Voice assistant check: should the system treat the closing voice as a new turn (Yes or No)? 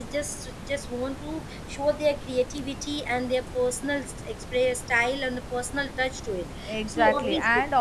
Yes